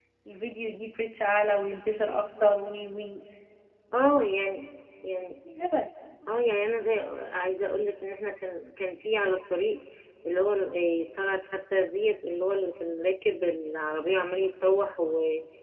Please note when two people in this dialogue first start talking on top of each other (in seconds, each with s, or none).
none